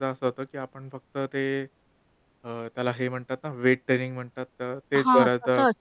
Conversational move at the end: taking over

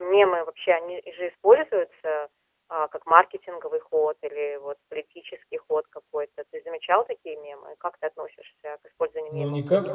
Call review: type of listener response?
taking over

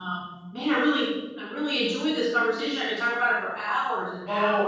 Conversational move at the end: taking over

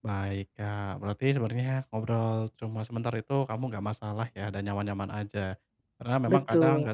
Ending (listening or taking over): listening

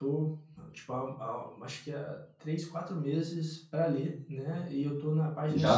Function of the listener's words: taking over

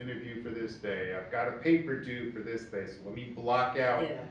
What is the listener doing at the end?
listening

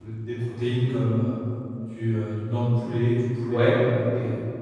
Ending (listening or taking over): listening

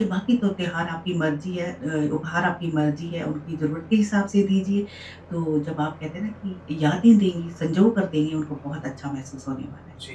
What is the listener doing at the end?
taking over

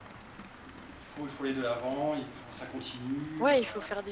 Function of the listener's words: taking over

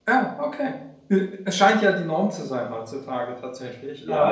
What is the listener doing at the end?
taking over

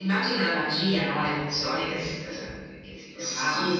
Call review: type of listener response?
taking over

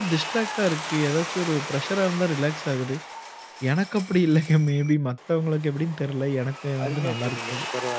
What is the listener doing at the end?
taking over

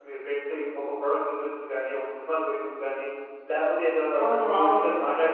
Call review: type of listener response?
listening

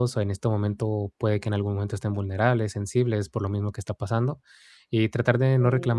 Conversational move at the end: listening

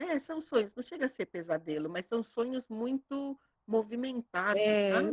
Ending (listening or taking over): taking over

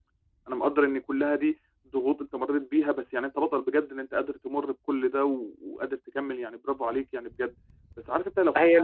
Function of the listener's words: listening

